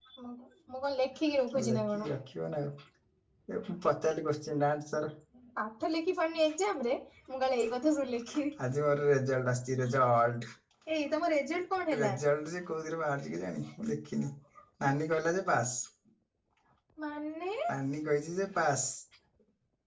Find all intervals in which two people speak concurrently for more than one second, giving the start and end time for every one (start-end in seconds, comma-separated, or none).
none